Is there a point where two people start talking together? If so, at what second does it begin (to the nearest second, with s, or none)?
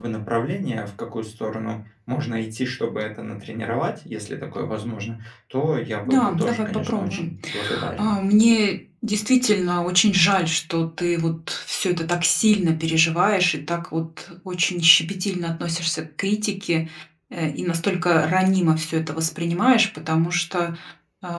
6 s